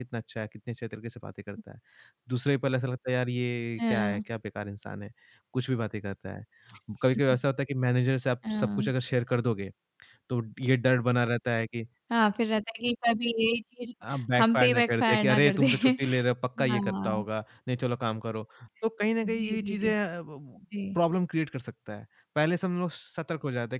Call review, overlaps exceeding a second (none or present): present